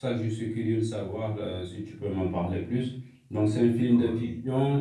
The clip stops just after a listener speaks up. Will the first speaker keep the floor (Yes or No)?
Yes